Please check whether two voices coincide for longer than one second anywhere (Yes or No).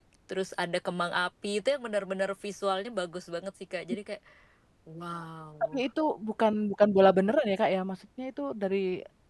No